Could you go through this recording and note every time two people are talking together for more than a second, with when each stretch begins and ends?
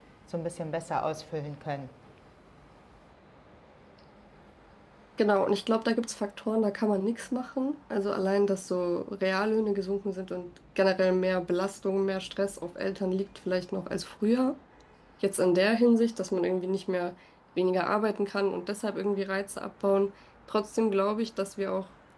none

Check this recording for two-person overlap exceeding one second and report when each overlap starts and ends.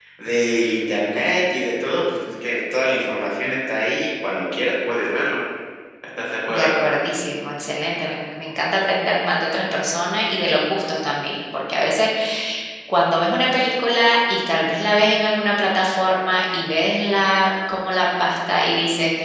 none

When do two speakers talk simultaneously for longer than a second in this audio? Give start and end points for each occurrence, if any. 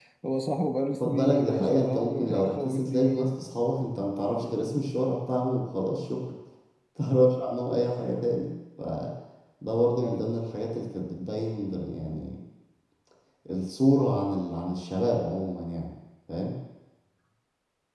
1.0-3.4

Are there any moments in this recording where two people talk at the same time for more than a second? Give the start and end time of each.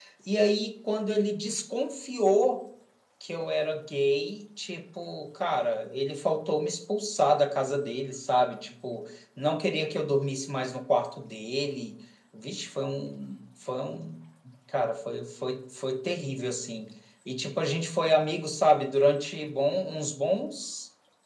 none

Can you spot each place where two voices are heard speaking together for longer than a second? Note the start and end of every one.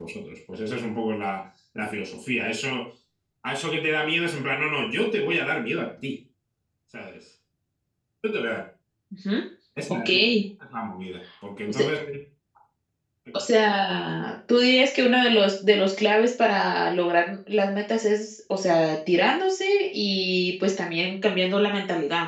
none

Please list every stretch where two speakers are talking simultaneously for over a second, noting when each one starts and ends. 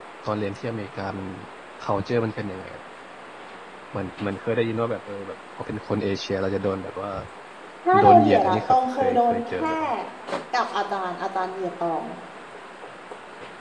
8.0-9.7

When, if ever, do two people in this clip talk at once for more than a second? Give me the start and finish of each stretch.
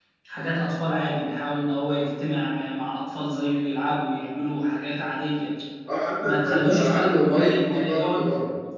6.2-8.2

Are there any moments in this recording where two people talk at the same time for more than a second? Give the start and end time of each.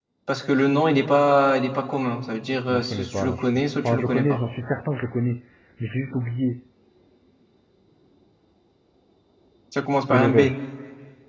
2.7-4.4

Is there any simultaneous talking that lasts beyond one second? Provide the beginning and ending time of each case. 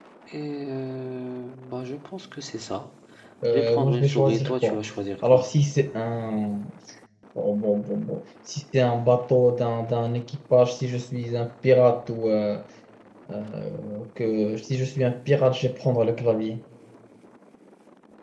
3.5-4.8

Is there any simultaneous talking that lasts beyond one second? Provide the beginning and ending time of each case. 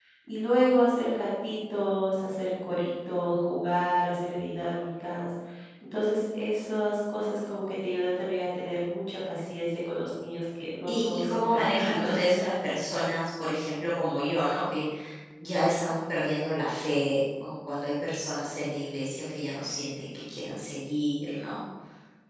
10.9-12.1

